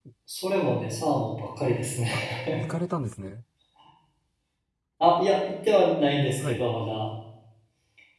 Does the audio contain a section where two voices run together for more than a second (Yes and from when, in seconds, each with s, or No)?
No